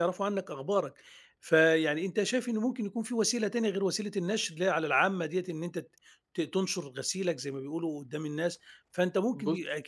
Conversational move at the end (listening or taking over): listening